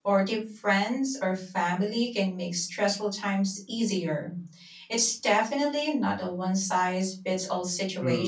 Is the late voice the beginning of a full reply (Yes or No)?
Yes